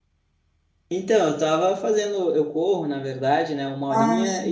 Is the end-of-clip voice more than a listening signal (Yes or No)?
No